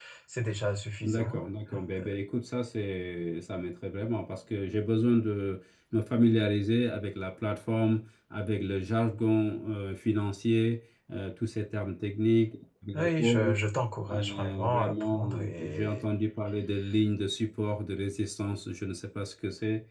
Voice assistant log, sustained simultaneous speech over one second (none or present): present